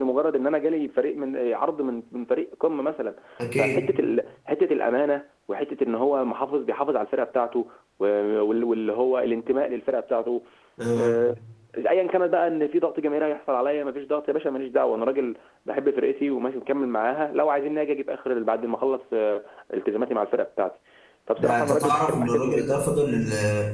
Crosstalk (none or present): present